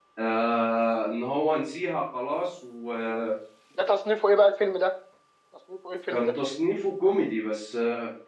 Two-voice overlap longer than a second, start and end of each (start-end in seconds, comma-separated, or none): none